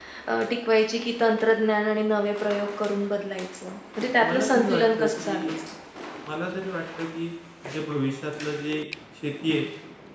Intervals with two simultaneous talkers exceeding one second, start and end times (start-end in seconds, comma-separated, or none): 4.2-5.5